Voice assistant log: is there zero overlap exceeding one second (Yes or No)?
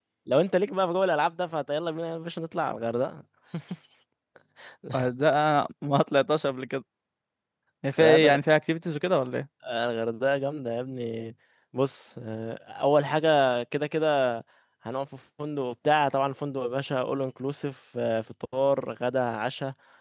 Yes